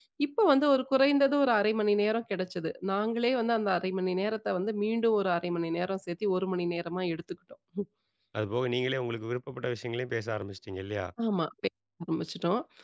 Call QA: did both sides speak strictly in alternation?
Yes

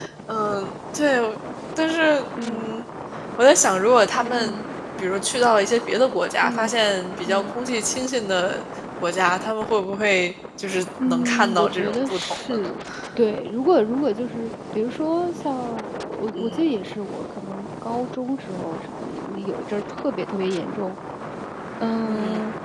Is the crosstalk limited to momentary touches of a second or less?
No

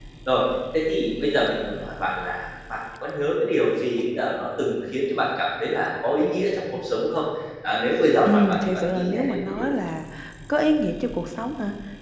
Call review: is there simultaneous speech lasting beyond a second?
Yes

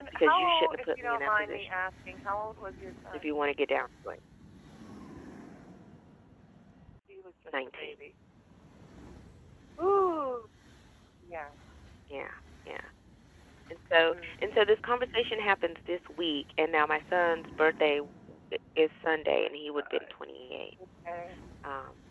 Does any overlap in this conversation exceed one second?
Yes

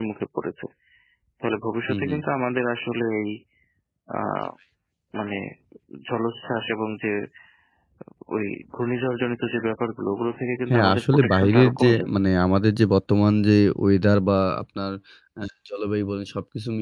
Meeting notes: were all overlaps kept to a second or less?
No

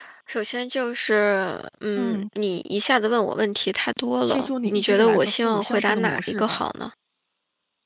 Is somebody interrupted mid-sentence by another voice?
Yes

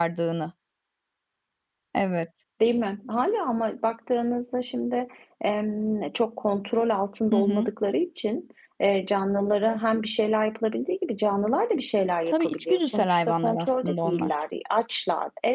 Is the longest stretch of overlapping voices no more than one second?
No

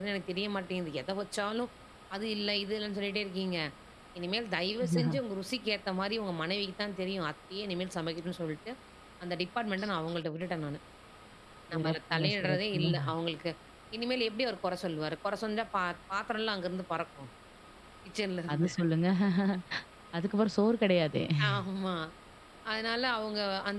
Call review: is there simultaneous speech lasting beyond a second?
Yes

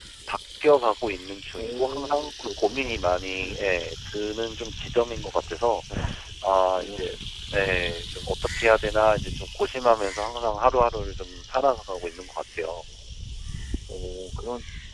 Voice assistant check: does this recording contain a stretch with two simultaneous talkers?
Yes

